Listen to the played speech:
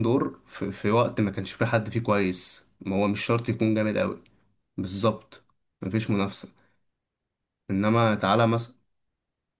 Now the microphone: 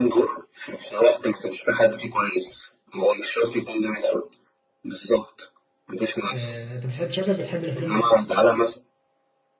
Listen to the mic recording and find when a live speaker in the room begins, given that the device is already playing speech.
6.3 s

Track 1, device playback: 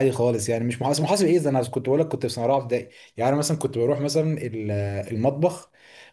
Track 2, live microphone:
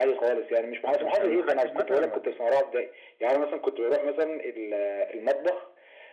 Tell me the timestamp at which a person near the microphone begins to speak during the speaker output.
0.8 s

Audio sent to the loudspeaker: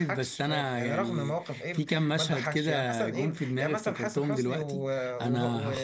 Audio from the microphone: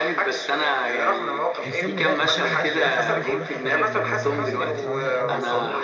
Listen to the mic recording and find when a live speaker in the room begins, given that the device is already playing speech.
1.6 s

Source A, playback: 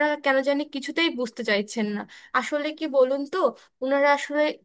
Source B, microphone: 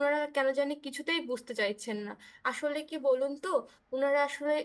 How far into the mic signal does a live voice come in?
none

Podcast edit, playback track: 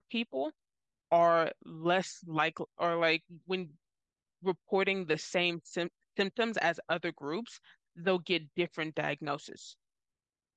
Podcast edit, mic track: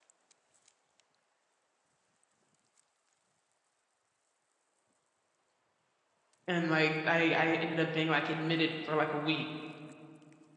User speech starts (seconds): 6.5 s

